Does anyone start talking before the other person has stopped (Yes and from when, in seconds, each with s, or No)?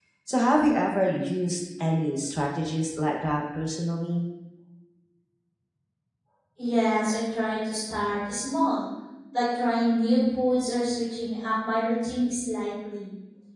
No